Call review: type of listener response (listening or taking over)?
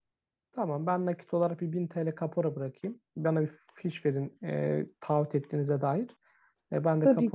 listening